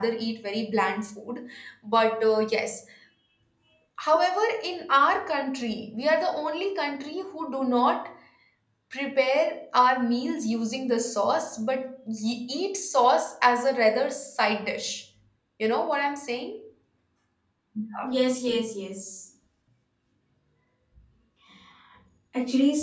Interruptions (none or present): none